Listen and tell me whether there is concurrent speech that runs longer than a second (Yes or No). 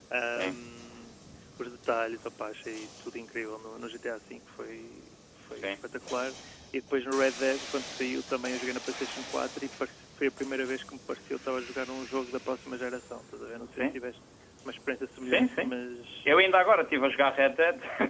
No